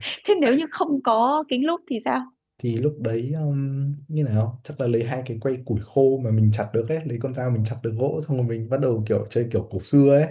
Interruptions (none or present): none